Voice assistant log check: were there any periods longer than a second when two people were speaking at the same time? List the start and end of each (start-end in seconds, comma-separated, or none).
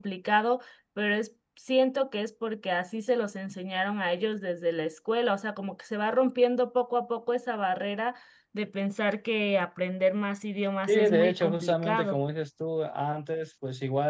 10.9-12.2